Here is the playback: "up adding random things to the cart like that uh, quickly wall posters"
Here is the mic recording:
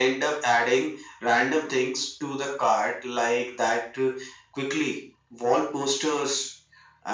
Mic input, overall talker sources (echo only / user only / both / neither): echo only